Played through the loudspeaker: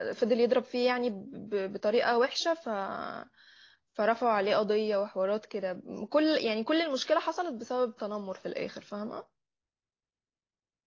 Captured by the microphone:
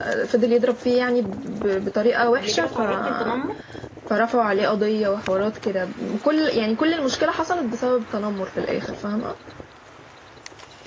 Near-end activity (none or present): present